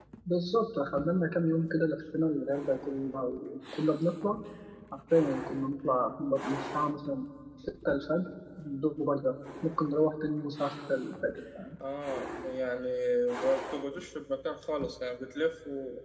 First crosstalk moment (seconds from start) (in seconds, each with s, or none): none